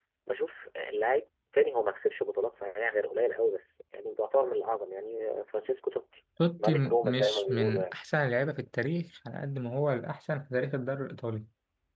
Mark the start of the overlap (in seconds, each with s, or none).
6.4 s